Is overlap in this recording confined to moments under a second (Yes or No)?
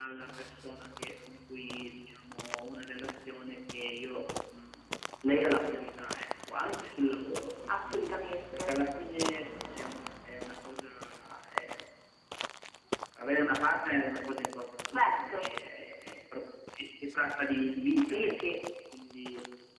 Yes